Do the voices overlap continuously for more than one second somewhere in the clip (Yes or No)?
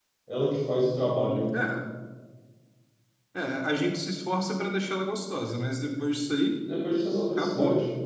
No